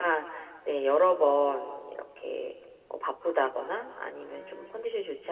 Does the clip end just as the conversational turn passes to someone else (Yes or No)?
No